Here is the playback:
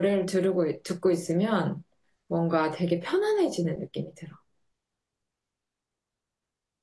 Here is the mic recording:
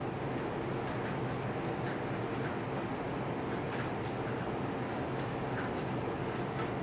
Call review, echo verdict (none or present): none